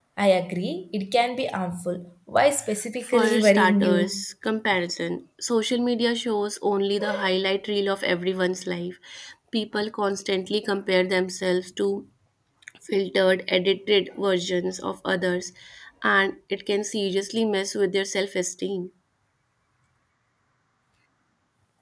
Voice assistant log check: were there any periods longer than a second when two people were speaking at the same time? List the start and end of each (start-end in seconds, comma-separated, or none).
3.0-4.2